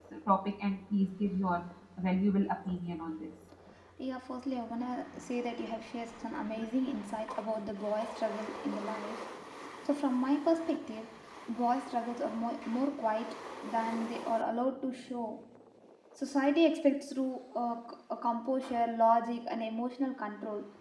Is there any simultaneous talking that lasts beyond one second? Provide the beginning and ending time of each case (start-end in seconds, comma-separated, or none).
none